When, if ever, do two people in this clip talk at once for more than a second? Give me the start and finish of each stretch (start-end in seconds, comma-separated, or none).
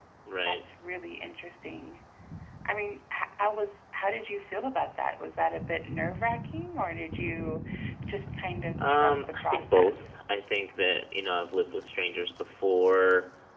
8.9-10.1